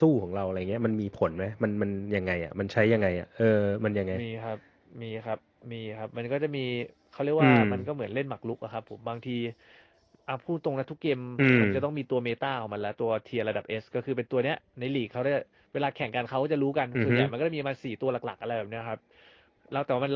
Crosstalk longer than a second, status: none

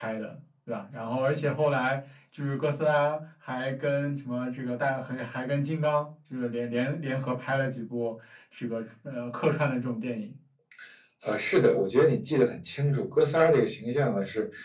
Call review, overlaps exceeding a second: none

